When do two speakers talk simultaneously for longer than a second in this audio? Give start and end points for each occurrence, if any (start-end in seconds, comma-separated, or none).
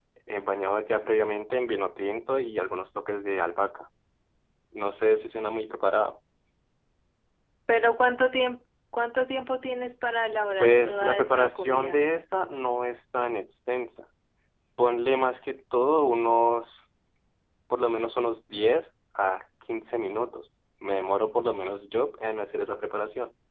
10.6-12.1